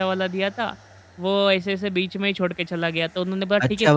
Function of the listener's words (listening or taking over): taking over